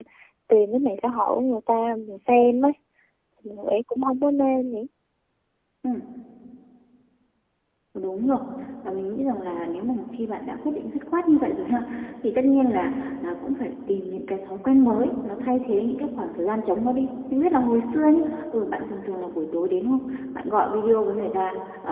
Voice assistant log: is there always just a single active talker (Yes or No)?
Yes